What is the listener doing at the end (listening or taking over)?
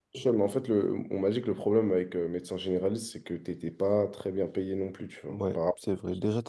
taking over